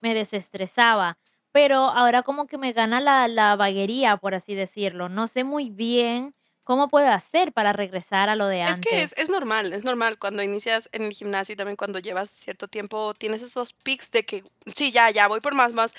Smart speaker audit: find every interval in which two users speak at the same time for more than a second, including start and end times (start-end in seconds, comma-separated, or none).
none